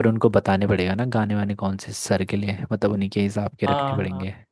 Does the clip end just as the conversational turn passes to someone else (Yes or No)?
Yes